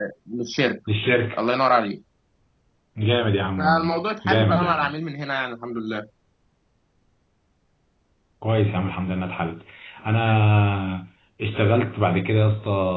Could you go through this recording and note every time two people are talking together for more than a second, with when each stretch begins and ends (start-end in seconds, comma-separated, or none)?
3.6-4.9